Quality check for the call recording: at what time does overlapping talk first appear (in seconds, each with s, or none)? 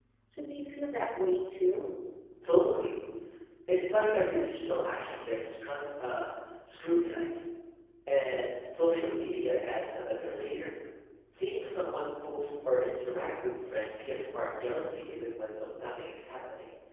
none